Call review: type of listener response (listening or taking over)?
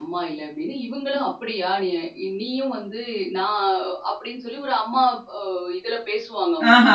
taking over